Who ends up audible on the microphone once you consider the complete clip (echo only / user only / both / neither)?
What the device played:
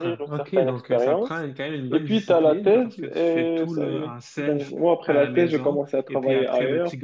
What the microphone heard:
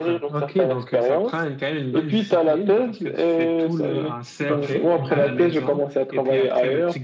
both